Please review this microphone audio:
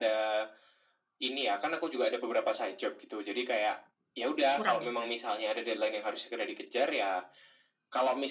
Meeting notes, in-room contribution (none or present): present